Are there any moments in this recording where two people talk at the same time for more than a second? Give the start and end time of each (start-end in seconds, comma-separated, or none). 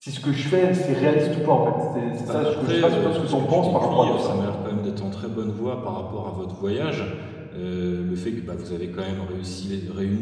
2.2-4.3